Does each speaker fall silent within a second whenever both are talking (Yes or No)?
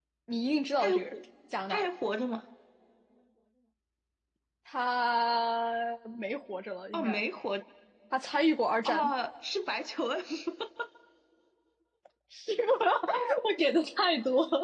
Yes